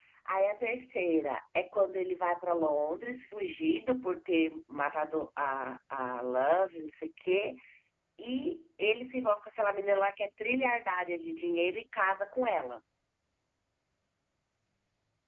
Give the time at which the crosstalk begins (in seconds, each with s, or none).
none